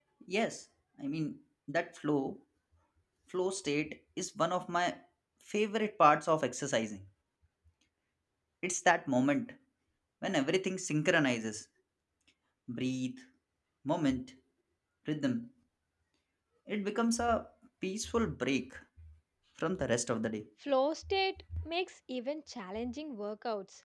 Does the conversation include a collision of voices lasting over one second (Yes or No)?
No